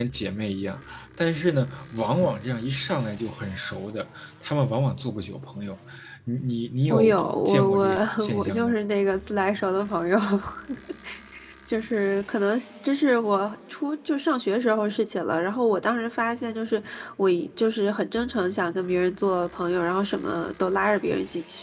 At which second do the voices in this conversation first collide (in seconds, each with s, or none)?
6.9 s